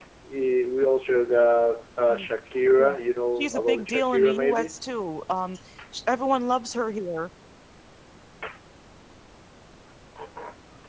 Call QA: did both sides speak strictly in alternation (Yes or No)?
No